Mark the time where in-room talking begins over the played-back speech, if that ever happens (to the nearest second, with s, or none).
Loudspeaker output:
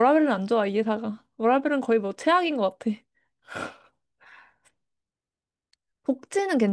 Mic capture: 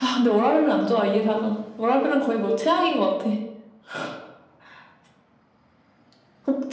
none